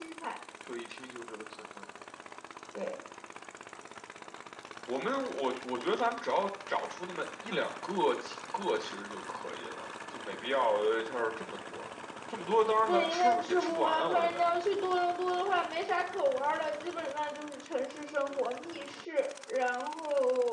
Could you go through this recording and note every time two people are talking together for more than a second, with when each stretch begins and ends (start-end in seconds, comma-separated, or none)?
12.8-14.5